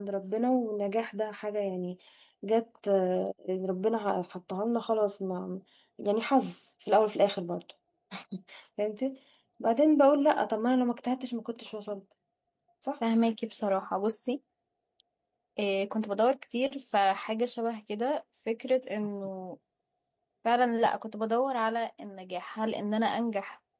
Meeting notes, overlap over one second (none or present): none